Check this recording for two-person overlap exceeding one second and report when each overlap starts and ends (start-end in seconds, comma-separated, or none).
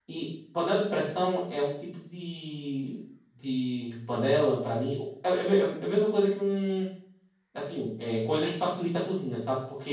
none